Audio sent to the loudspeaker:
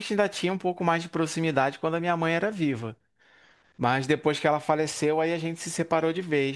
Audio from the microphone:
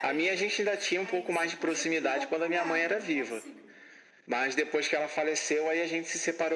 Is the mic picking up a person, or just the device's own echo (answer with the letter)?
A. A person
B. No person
A